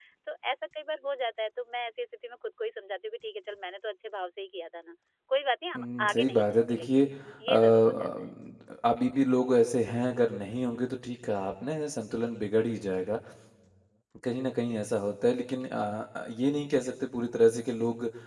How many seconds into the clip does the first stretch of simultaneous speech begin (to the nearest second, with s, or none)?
6 s